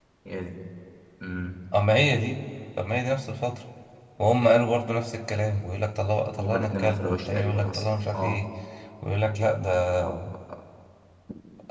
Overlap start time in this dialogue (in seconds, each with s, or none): 6.4 s